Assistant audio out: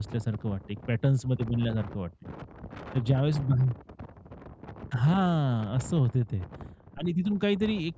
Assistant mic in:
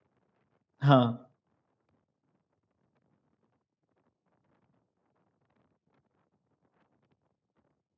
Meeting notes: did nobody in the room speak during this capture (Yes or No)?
No